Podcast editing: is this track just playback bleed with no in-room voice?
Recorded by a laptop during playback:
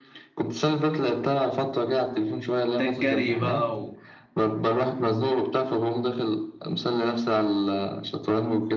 No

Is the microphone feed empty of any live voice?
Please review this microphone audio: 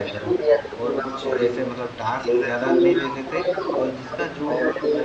No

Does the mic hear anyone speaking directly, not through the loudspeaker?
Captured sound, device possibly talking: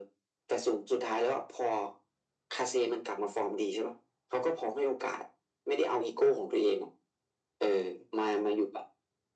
No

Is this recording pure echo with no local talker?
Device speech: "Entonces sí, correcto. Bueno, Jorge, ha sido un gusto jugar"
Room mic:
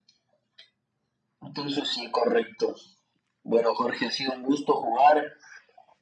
Yes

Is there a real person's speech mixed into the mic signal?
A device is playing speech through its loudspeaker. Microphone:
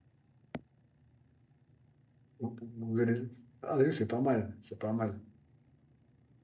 Yes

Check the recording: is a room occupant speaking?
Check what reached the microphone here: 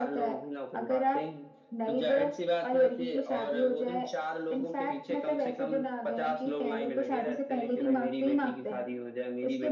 No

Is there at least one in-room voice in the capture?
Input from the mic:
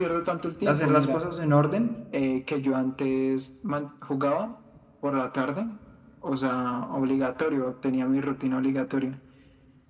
Yes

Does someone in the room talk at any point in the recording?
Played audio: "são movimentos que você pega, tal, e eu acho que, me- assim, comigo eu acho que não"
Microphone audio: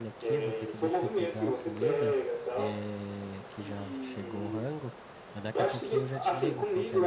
Yes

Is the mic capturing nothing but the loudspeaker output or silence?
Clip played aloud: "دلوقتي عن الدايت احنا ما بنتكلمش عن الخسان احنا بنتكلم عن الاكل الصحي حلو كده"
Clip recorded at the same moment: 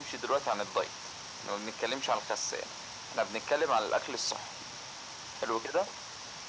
Yes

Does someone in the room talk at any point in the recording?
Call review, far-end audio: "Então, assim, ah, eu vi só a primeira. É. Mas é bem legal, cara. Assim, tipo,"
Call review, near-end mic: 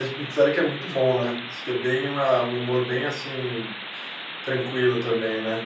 Yes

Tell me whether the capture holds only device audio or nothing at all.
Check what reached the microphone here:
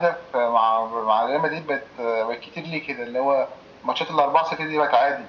Yes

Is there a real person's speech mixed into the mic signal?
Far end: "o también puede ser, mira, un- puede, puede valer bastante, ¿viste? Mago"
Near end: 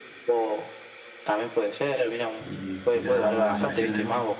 Yes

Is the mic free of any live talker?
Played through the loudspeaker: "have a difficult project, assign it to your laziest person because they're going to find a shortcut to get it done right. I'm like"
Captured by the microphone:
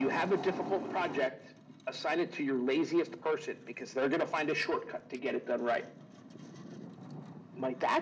Yes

